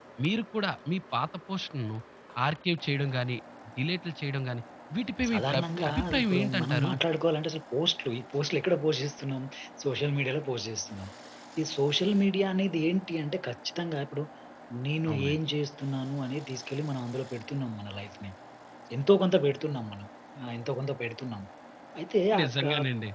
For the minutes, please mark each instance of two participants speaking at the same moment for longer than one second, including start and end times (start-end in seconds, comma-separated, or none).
5.3-6.9